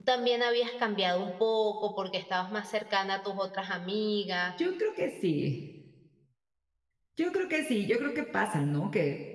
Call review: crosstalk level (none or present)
none